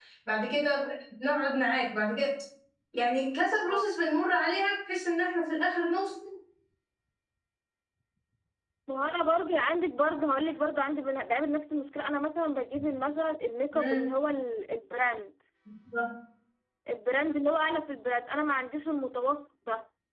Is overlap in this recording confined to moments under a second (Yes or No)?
Yes